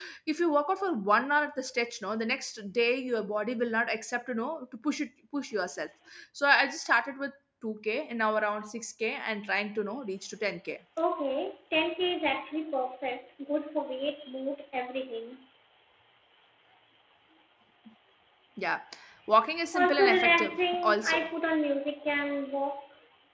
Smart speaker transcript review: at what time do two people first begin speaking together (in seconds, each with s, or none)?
19.7 s